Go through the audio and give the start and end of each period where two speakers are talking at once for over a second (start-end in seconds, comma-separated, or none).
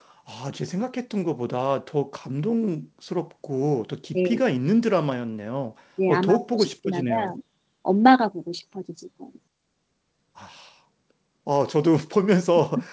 6.1-7.3